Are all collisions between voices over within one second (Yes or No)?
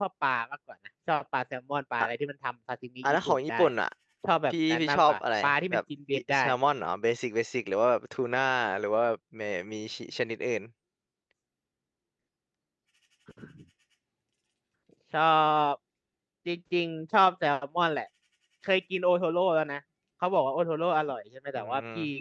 No